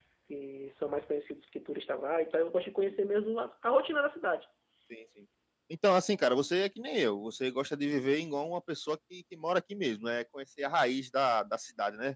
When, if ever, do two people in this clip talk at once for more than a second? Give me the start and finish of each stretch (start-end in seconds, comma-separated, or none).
none